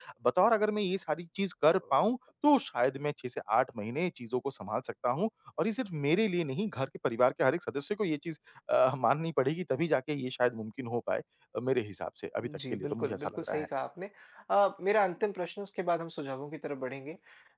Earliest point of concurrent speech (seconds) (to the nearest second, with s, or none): 12 s